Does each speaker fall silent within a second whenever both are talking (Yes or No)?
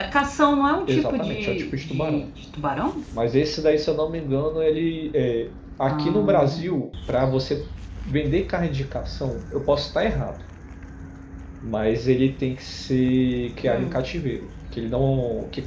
No